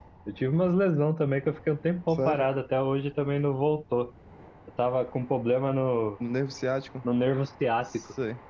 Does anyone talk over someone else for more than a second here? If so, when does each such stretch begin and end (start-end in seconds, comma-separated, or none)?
none